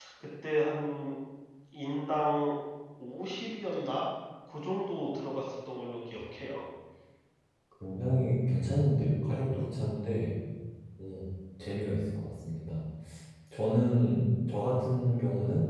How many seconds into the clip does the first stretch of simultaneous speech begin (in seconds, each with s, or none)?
none